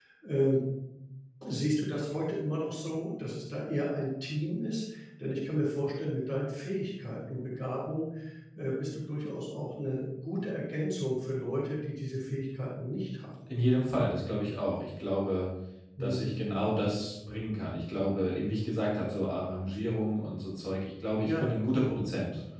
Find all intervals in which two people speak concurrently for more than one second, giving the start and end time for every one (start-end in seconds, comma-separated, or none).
none